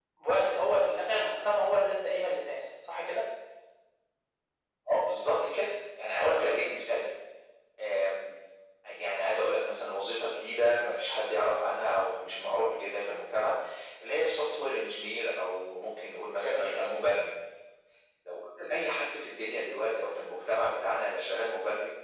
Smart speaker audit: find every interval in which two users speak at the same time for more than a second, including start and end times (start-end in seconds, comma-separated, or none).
none